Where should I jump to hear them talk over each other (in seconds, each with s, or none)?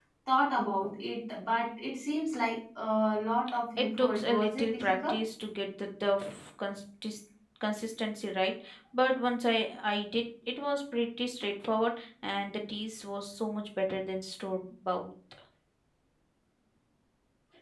3.8 s